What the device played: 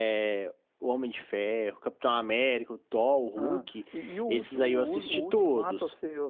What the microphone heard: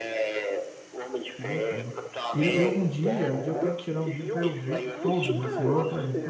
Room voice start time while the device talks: 1.4 s

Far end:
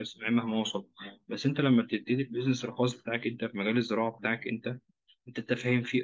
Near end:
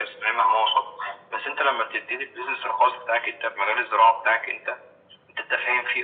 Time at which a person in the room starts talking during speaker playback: none

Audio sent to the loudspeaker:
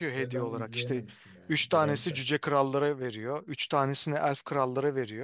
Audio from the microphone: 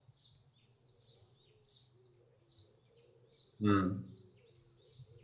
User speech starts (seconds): 3.6 s

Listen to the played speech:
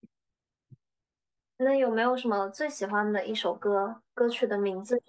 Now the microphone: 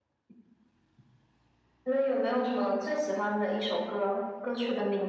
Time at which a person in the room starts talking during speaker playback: none

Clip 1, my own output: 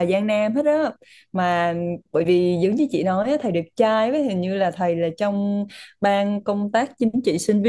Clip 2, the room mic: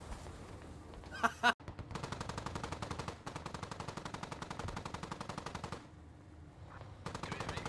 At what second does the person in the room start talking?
none

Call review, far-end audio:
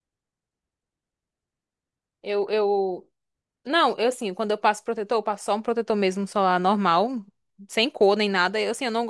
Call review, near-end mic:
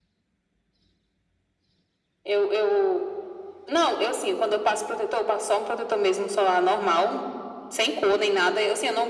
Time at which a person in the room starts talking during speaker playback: none

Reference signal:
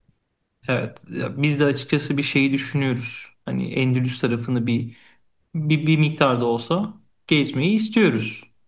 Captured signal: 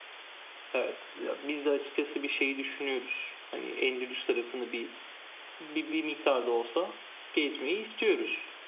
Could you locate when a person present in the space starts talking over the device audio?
none

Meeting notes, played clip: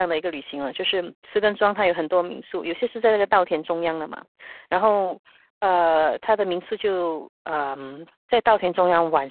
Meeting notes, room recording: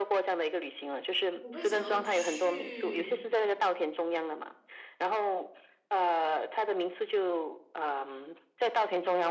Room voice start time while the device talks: 1.4 s

